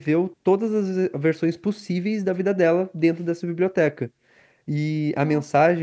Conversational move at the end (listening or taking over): listening